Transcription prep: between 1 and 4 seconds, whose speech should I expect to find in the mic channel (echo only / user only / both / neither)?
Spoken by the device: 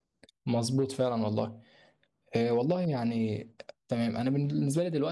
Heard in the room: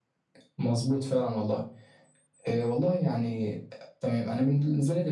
echo only